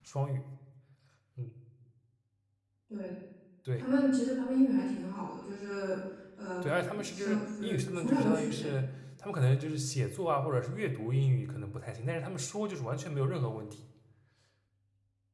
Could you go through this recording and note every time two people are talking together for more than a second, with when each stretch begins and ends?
6.6-8.7

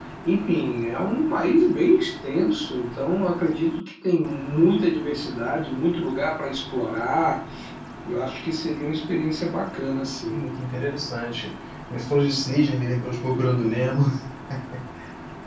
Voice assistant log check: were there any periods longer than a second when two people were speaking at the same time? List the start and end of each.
none

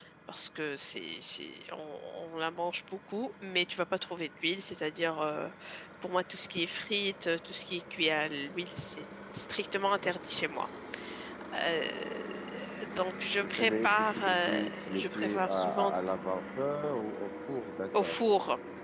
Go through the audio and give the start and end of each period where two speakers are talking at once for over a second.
13.4-15.9

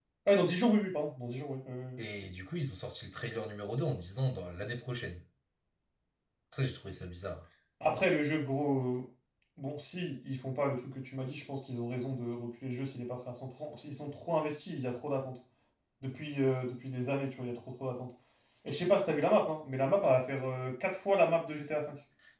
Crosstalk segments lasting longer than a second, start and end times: none

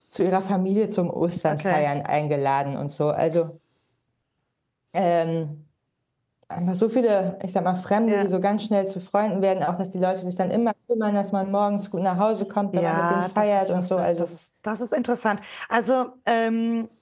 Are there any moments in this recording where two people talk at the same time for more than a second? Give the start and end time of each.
12.7-14.3

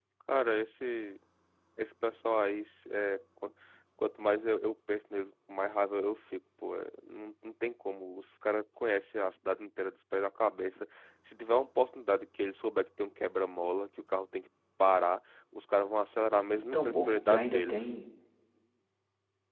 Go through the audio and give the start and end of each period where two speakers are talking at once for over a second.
16.6-17.9

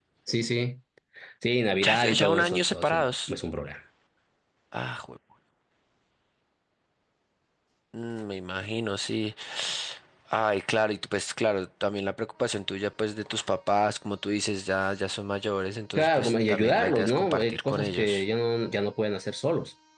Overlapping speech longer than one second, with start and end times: 1.8-3.3, 15.9-18.2

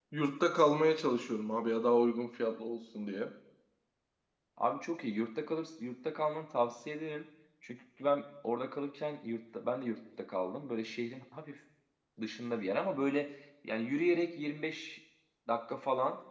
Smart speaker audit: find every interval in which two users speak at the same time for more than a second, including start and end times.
none

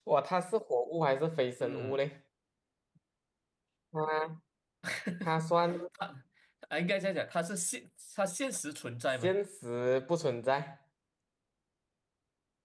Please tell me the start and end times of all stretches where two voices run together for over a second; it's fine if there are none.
none

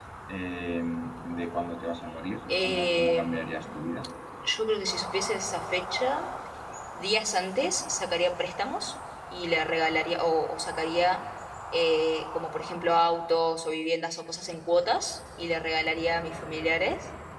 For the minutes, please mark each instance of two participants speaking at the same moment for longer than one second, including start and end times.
2.6-3.8

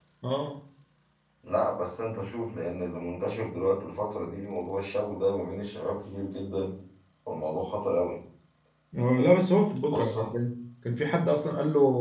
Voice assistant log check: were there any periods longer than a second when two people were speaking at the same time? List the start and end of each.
none

